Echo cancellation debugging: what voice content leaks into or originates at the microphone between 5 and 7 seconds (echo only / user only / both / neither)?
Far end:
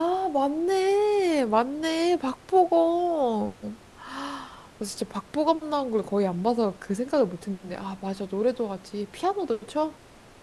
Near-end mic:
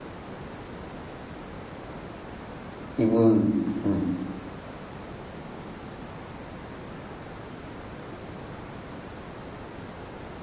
neither